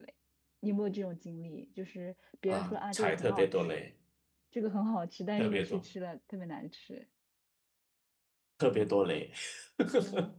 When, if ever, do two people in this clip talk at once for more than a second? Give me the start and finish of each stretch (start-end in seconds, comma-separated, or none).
2.5-3.8